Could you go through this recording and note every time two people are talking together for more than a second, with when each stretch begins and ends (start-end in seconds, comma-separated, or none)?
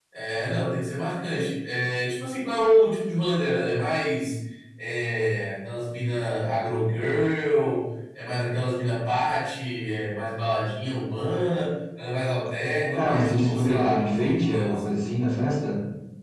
12.9-14.9